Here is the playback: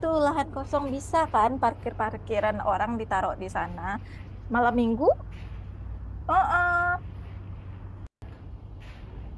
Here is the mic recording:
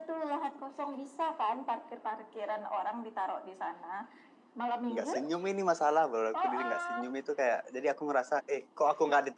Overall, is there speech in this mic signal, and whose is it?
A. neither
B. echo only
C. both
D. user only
C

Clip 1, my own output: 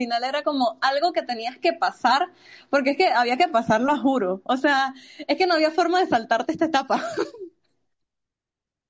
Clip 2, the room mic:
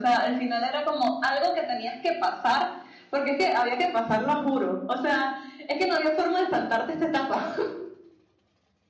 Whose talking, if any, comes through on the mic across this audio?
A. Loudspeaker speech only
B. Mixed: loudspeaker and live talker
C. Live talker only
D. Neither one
A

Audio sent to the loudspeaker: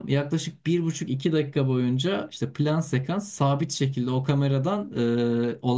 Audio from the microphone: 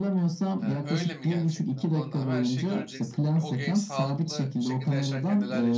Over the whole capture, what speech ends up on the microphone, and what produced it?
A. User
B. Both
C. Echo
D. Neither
B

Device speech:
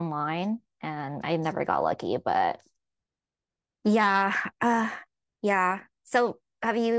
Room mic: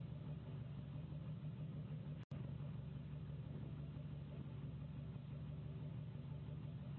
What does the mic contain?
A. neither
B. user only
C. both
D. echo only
A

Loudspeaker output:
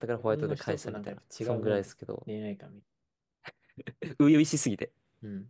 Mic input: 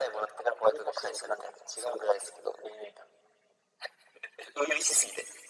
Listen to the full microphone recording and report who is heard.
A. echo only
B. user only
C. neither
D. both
A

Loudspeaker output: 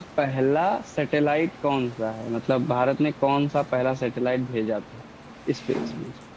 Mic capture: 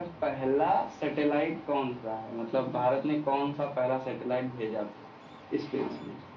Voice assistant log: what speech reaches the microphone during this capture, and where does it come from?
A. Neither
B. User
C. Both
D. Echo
D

